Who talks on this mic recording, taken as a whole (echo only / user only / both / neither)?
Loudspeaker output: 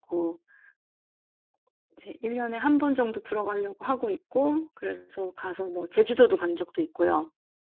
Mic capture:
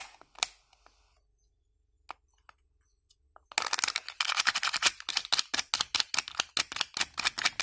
neither